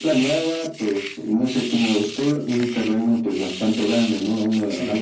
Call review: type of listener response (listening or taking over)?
listening